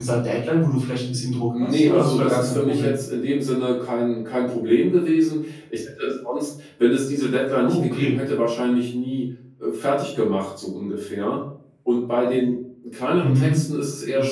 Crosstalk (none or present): present